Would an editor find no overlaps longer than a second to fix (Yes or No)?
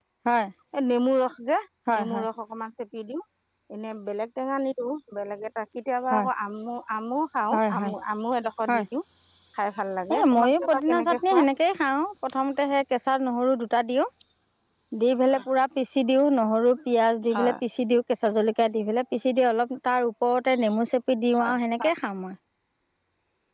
No